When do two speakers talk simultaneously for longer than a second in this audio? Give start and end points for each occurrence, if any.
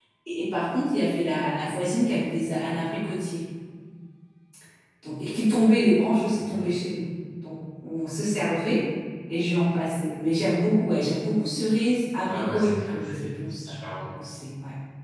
12.2-13.8

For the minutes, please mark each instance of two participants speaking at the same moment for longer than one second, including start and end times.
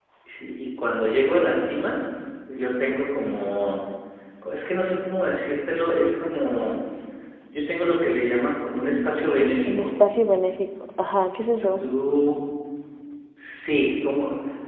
none

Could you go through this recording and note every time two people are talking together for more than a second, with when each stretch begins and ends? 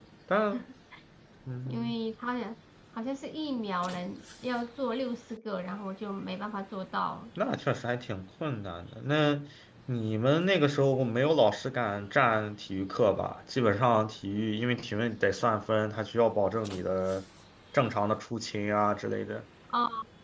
none

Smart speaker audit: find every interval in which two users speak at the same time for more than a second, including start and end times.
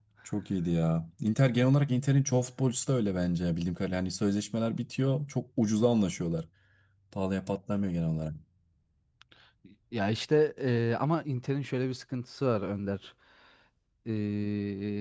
none

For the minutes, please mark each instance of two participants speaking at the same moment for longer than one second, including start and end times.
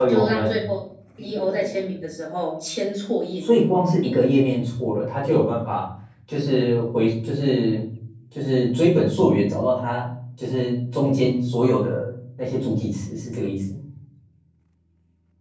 none

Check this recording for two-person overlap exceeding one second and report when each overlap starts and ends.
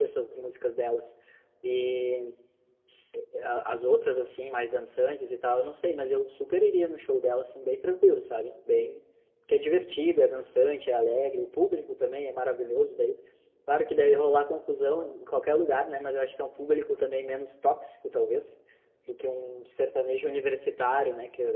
none

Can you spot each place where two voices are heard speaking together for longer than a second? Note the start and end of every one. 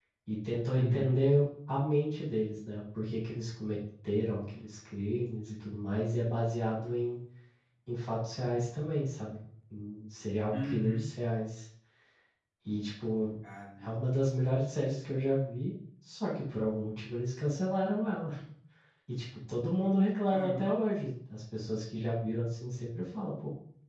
none

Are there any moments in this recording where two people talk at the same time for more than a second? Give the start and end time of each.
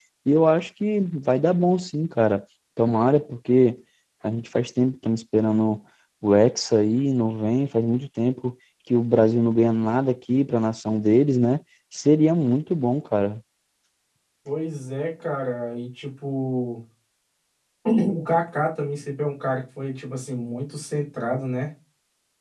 none

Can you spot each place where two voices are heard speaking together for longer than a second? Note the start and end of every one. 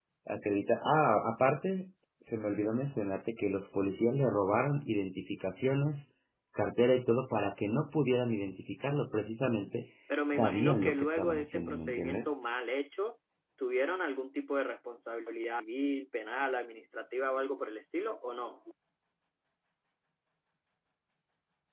10.3-12.3

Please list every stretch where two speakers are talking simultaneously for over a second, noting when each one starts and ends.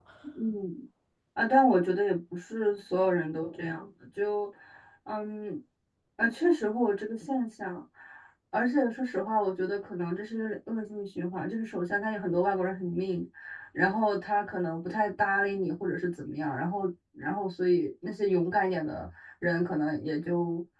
none

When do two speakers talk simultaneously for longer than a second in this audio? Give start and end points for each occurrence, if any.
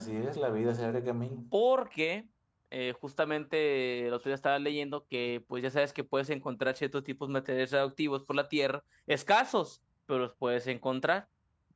none

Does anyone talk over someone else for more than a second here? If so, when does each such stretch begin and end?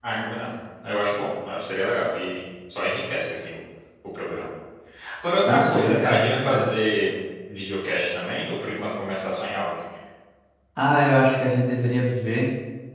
5.5-6.7

